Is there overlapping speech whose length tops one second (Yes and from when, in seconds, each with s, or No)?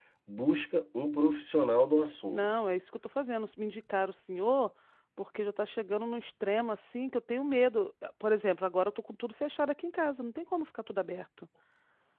No